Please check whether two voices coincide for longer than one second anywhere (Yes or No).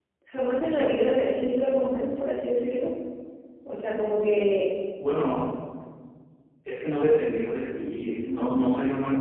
No